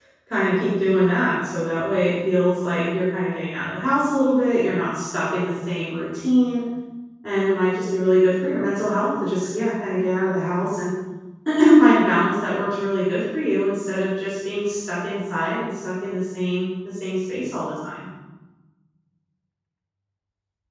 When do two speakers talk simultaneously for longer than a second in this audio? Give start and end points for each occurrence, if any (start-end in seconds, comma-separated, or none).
none